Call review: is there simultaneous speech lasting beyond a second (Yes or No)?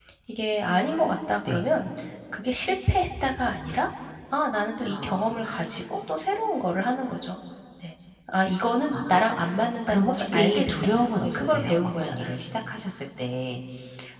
Yes